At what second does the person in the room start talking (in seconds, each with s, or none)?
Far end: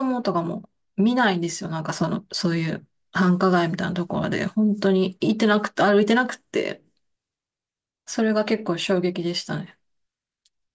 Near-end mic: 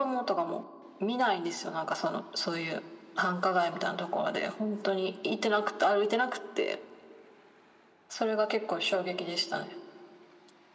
none